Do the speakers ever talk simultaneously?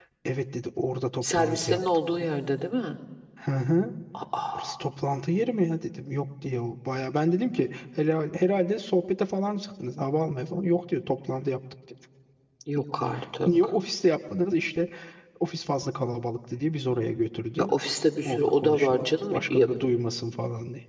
Yes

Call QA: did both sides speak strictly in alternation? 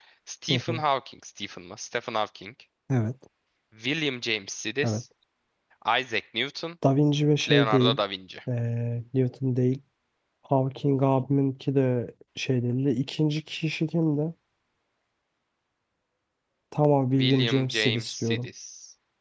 No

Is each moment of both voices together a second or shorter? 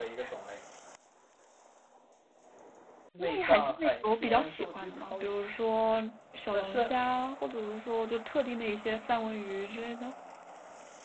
No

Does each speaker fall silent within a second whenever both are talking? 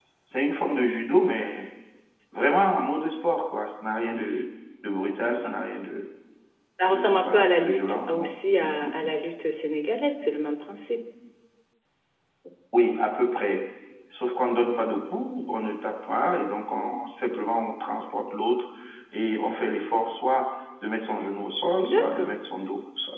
No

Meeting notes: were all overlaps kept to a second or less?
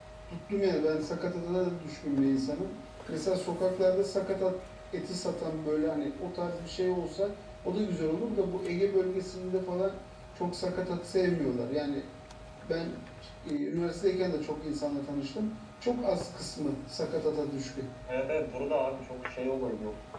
Yes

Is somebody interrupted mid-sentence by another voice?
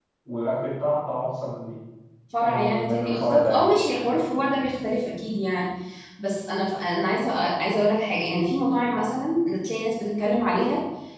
Yes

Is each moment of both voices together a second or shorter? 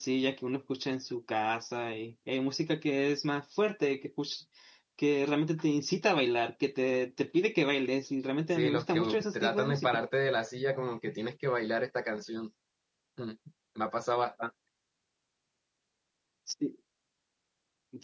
No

